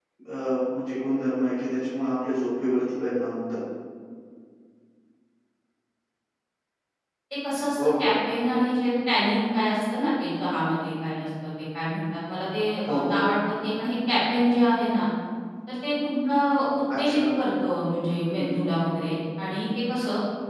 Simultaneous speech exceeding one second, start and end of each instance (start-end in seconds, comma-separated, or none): none